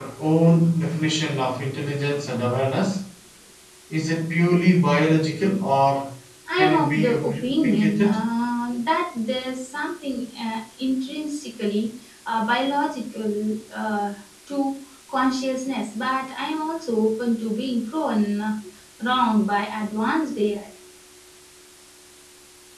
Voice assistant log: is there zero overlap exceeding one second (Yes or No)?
No